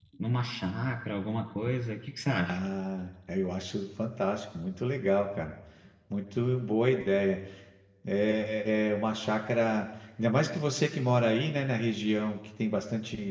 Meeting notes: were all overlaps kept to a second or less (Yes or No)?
Yes